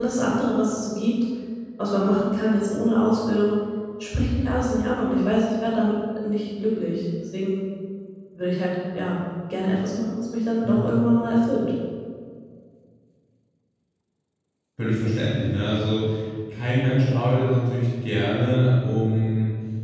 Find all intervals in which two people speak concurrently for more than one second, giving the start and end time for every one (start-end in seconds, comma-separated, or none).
none